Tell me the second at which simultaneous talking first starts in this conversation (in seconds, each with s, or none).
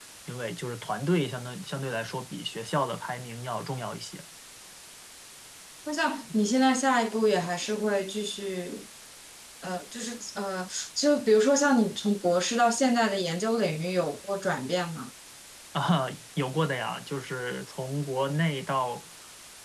none